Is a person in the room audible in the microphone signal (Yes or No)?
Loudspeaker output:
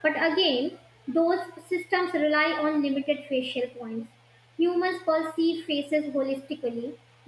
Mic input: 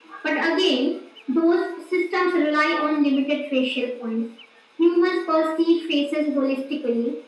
No